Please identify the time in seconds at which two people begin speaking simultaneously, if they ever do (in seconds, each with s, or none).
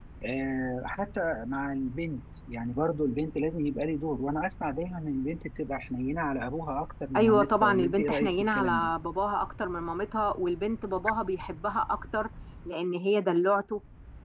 7.1 s